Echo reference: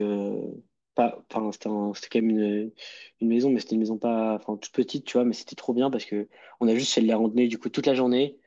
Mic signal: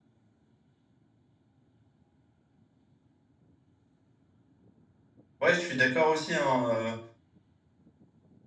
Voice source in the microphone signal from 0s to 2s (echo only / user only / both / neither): neither